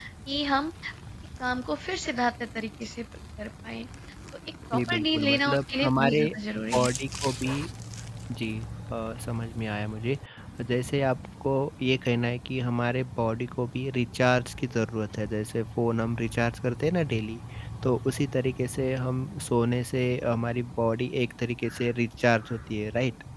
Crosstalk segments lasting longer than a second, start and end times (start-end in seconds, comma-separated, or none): 4.7-6.2